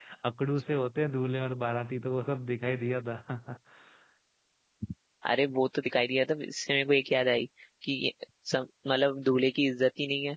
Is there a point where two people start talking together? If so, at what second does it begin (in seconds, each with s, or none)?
none